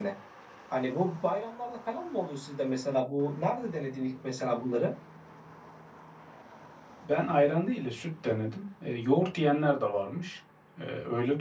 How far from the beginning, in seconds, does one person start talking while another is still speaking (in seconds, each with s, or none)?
none